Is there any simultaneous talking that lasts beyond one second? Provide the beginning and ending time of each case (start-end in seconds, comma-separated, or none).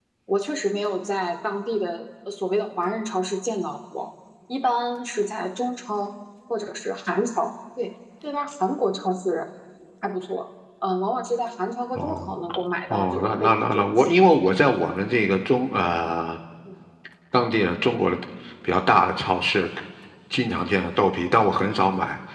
12.9-14.2